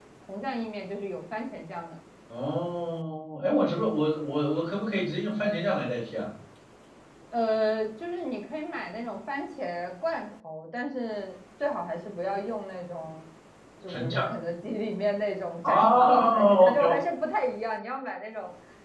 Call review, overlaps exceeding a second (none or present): present